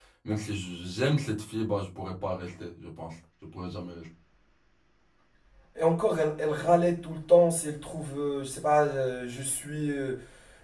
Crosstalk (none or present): none